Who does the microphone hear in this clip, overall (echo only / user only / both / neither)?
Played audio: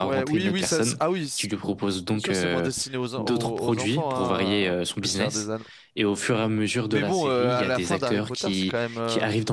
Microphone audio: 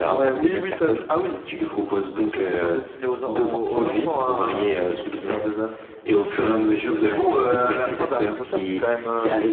both